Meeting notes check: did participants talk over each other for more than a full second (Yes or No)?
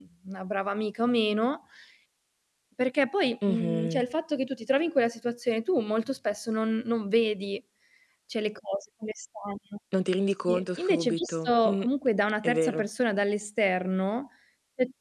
Yes